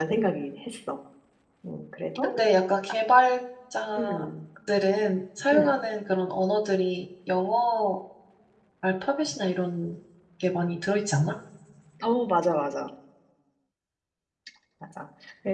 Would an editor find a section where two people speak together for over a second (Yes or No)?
No